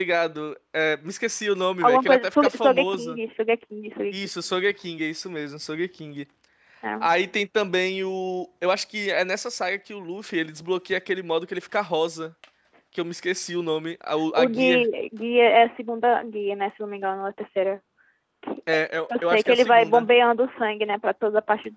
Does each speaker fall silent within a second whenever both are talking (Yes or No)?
No